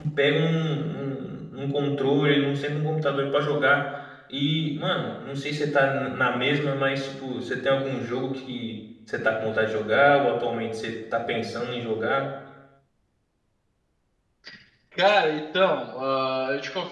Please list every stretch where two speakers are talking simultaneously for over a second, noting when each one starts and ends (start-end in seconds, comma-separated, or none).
none